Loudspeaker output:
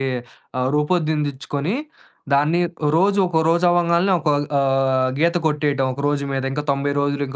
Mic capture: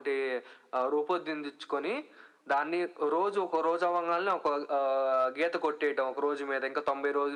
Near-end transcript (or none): none